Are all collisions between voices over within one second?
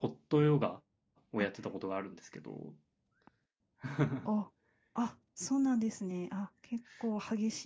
Yes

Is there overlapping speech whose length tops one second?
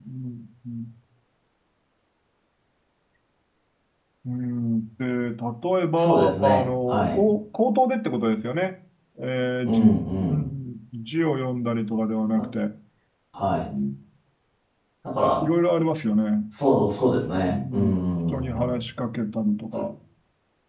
Yes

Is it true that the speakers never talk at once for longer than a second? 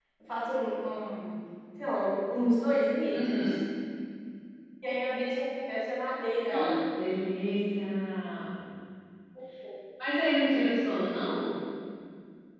Yes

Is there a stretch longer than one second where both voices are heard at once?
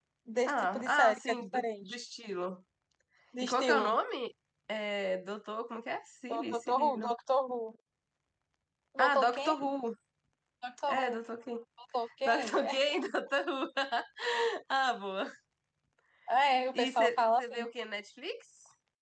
Yes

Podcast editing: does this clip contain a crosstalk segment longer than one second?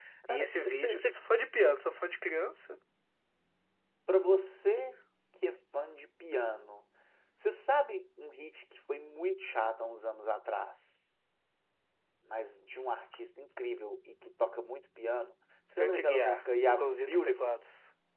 Yes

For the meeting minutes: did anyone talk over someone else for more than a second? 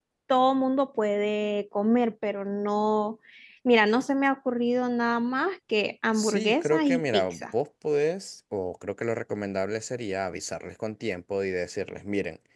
Yes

